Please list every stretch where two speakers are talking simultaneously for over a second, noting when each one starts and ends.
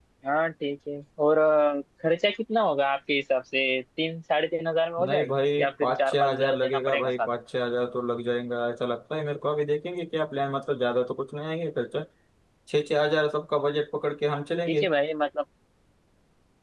5.1-7.3

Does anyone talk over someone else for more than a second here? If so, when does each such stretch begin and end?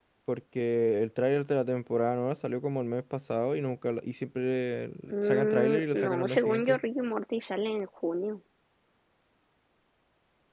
5.1-6.8

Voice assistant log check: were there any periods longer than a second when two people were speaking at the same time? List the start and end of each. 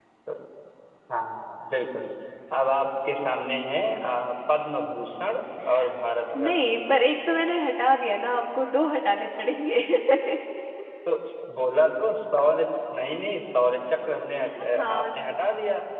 none

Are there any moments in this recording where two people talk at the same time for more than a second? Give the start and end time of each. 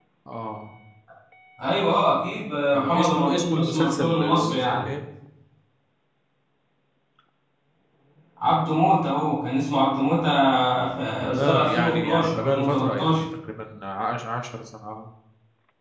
2.7-4.9, 11.2-13.1

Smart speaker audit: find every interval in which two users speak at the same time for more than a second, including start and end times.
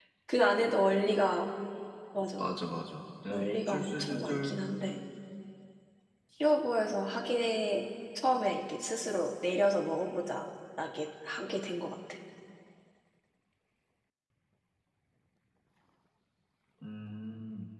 3.3-4.6

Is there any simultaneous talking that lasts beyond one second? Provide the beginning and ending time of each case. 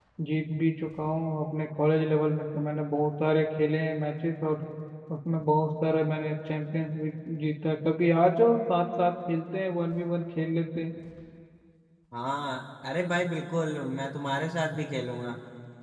none

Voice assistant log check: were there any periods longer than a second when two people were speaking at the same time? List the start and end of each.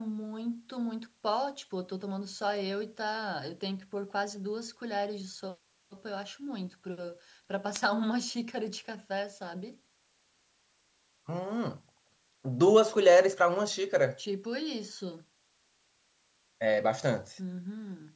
none

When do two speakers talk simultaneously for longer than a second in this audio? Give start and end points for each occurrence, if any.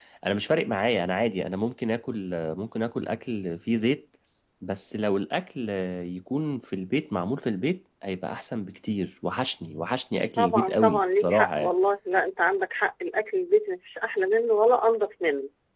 10.4-11.7

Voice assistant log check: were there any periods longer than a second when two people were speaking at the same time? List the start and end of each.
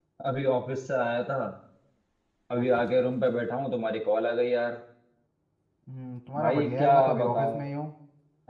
6.4-7.6

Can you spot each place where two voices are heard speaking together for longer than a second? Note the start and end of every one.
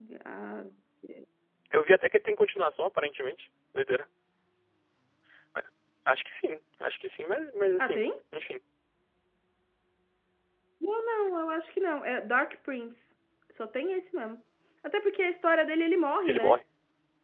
none

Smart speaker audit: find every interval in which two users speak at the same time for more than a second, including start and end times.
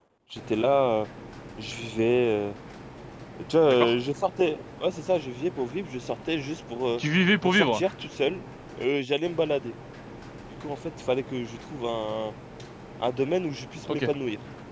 none

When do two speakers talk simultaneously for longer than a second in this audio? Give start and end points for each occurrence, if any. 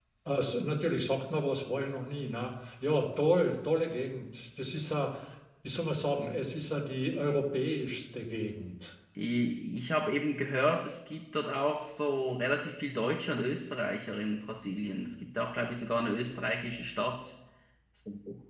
none

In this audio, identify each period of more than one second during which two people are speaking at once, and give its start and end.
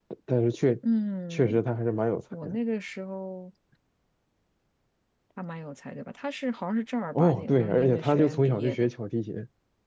7.1-8.9

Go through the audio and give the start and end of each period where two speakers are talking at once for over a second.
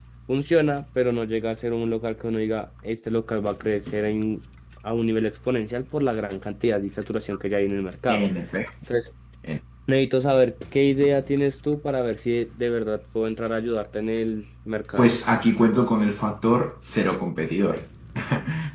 none

